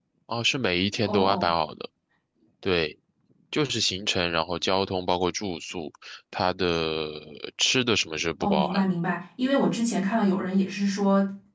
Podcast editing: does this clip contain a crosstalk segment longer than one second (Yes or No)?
No